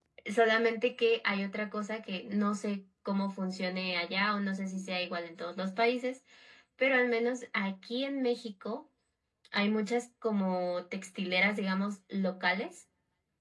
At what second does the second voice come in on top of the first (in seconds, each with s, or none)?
none